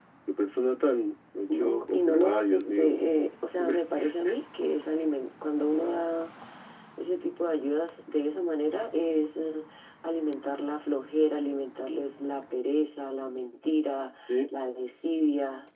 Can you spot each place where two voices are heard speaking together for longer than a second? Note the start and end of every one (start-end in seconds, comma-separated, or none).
1.5-2.9